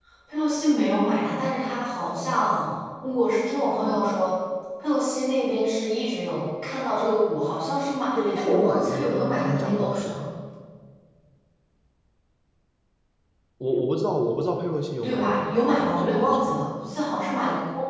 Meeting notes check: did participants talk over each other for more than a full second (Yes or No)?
Yes